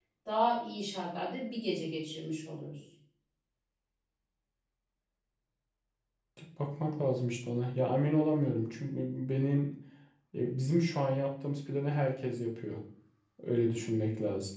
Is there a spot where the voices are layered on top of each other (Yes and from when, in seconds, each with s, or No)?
No